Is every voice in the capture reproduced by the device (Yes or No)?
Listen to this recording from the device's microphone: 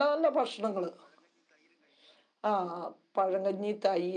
Yes